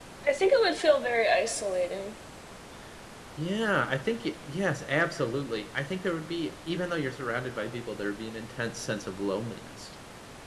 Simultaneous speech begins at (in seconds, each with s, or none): none